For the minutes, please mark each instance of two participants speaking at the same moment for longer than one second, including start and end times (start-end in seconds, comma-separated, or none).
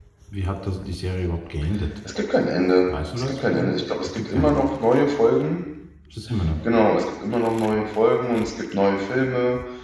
3.2-4.6